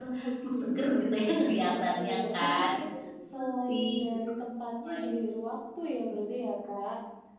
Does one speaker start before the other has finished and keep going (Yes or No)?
Yes